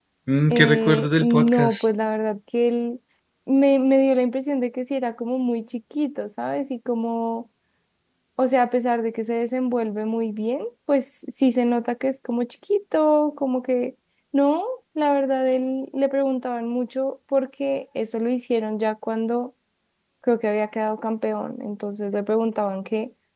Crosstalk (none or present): present